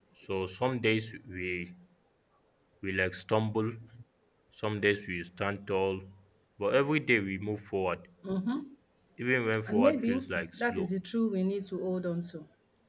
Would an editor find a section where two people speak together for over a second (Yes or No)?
Yes